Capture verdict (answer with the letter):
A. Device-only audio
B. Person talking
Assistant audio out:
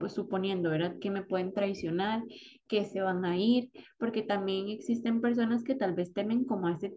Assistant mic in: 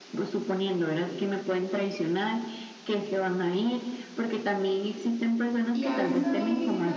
B